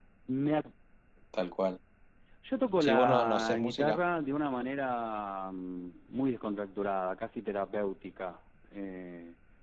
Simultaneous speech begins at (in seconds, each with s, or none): 2.8 s